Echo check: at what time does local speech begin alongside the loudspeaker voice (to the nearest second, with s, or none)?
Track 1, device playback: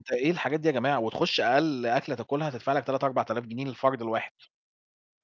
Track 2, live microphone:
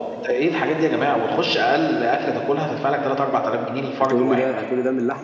4 s